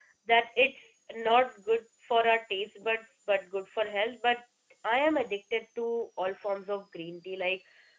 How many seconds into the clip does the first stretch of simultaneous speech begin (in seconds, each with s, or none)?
none